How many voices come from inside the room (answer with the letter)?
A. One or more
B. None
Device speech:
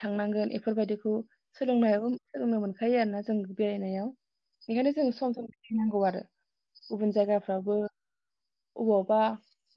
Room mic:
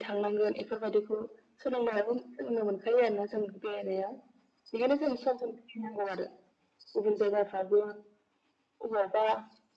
B